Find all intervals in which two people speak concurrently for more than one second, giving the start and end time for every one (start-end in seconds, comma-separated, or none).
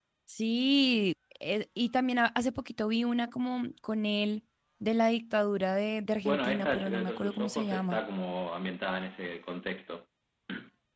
6.2-8.0